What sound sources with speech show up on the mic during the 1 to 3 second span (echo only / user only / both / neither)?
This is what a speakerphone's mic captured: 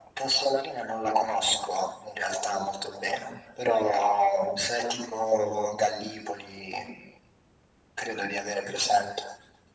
echo only